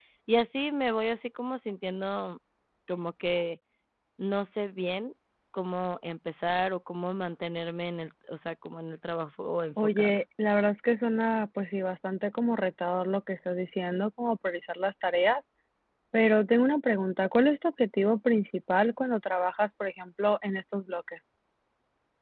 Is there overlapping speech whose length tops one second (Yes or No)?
No